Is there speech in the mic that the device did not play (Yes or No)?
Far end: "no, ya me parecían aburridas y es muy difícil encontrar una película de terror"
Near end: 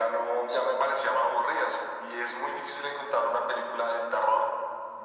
No